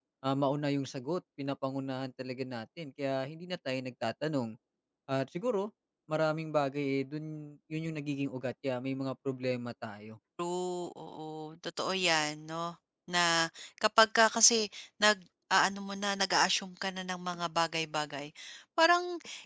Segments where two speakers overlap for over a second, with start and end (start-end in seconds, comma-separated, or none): none